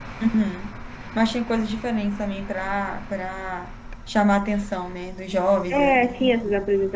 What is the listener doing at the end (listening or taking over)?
taking over